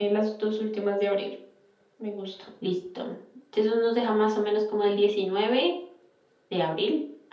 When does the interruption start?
none

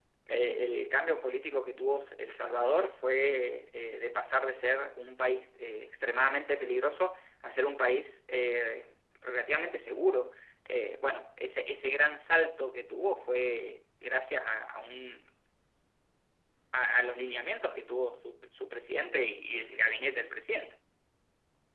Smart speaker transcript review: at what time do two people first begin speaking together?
none

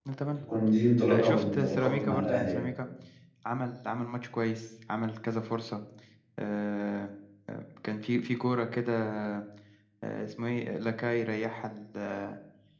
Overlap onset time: 1.1 s

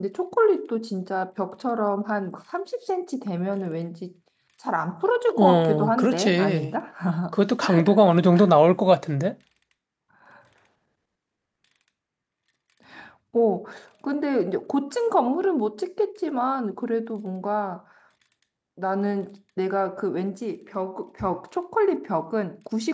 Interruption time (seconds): 5.4 s

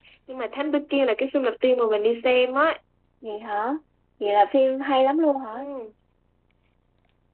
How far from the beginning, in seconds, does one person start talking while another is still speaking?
none

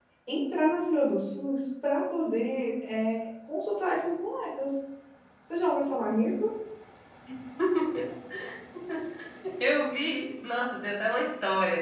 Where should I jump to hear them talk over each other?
none

